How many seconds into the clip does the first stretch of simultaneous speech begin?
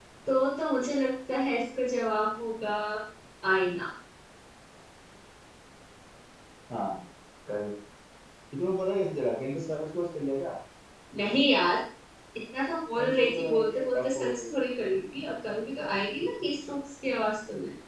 13.0 s

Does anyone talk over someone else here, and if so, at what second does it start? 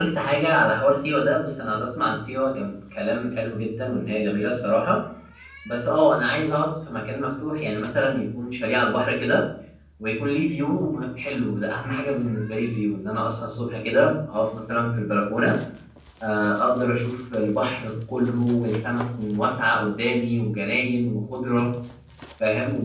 none

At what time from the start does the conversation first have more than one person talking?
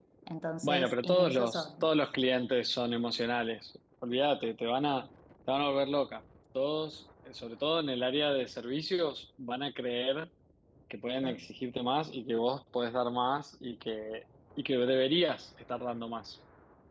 0.6 s

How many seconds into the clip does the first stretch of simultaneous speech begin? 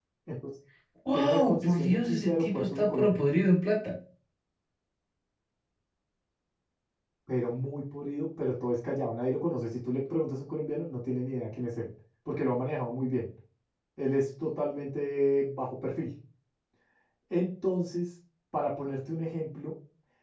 1.1 s

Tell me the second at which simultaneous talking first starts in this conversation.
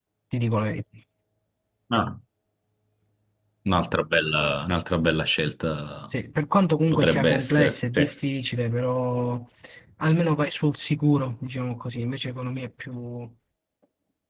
6.9 s

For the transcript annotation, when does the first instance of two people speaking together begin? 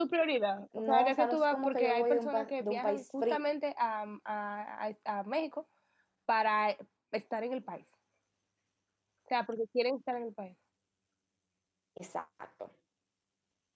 0.8 s

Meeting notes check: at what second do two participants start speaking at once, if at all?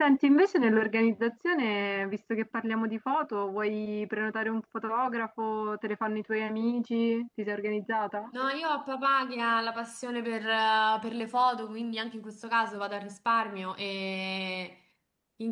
none

